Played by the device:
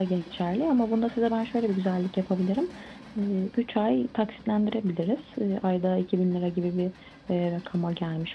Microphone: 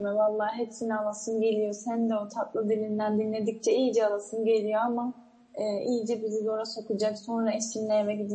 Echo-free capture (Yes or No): Yes